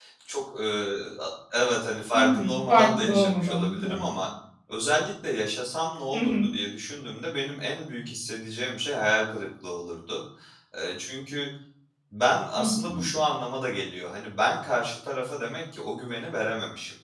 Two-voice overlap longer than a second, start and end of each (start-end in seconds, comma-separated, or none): 2.1-4.0